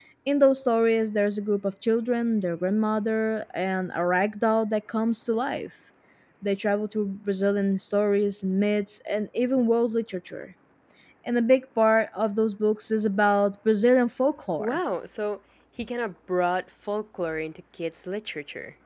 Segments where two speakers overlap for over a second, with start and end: none

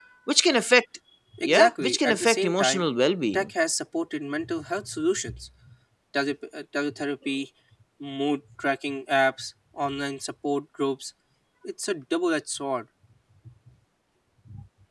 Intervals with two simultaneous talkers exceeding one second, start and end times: 1.4-2.9

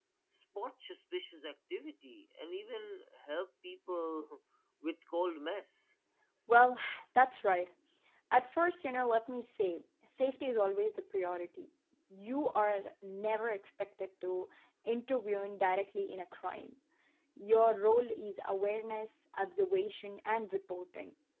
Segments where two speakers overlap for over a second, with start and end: none

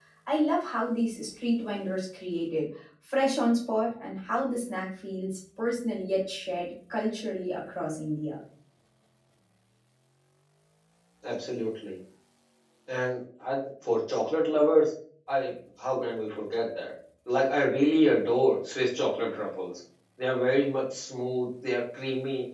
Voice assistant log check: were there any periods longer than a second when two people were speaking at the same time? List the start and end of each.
none

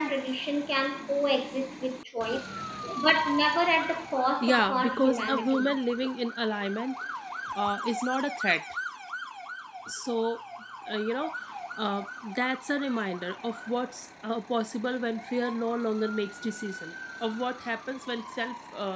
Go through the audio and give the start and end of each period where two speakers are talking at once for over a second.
4.4-5.8

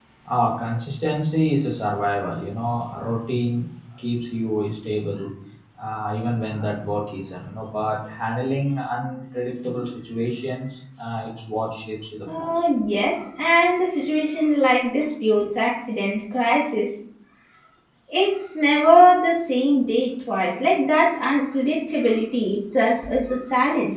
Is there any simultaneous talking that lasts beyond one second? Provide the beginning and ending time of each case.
none

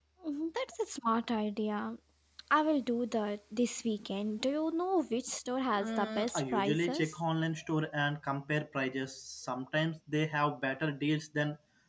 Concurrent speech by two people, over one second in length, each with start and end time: 5.7-7.2

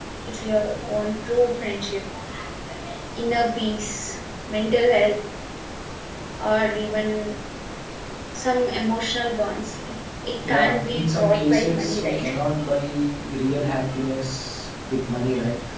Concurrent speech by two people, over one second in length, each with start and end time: 10.5-12.4

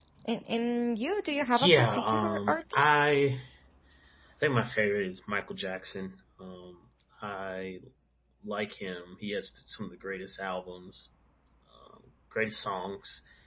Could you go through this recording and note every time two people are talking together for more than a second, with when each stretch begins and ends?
1.6-3.0

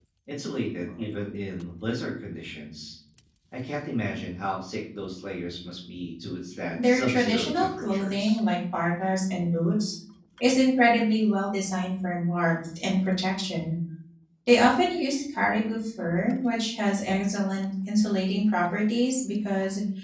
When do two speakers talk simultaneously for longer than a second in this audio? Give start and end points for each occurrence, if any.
6.8-8.4

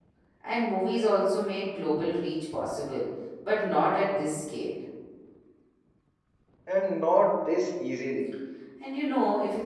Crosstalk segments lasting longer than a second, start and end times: none

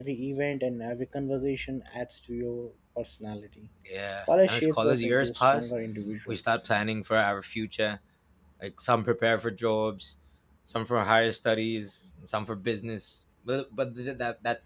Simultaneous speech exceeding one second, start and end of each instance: 4.5-5.7

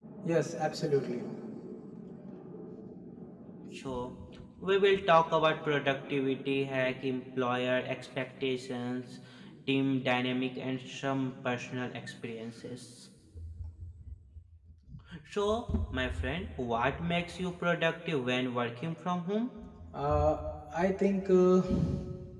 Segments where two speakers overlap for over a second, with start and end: none

